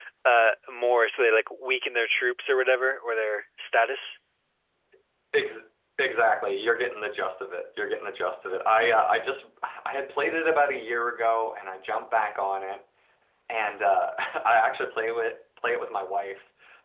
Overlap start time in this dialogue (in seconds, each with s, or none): none